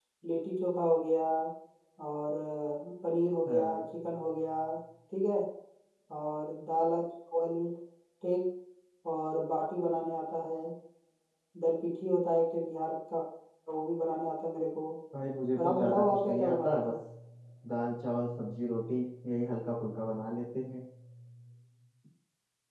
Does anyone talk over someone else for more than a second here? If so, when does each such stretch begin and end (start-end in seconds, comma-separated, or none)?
15.6-16.9